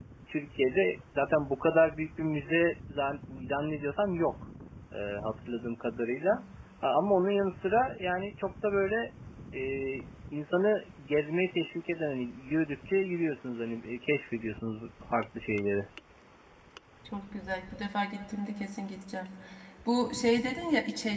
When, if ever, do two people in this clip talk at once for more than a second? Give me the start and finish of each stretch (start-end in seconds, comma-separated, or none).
none